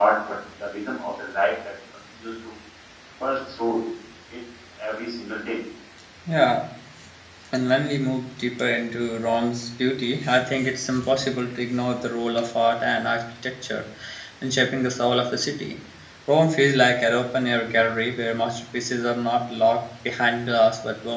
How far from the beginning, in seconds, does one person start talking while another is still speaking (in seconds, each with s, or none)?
none